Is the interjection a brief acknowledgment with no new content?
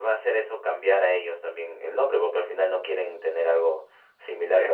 Yes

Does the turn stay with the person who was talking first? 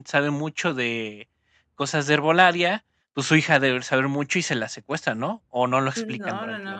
No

